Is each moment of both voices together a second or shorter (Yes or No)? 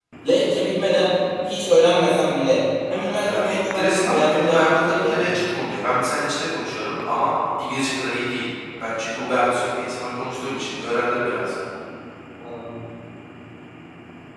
No